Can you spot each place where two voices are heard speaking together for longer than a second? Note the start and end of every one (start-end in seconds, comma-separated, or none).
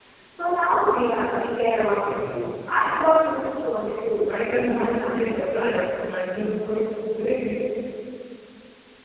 4.3-5.5